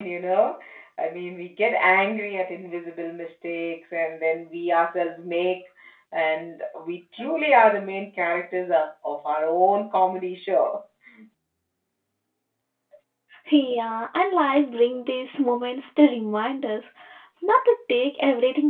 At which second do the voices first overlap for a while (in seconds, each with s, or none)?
none